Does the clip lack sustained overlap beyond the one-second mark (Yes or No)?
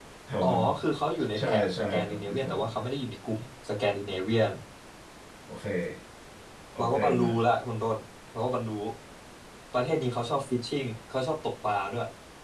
No